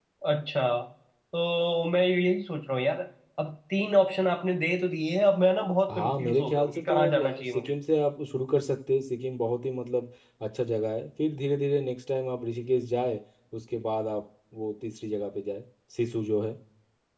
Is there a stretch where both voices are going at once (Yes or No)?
Yes